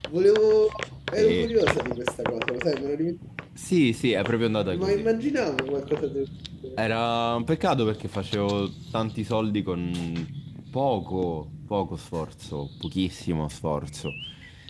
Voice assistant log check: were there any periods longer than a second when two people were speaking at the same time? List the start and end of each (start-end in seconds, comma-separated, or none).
none